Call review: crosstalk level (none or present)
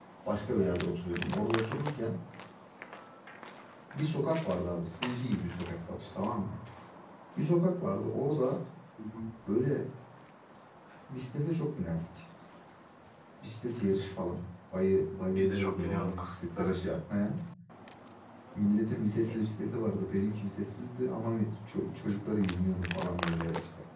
present